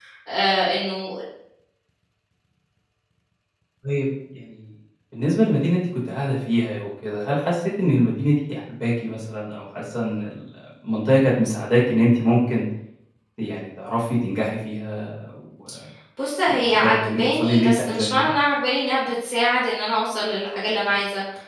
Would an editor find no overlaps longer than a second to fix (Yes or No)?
No